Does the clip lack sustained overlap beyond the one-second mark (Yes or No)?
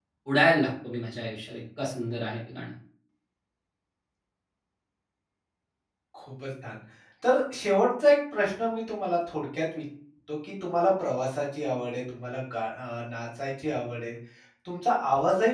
Yes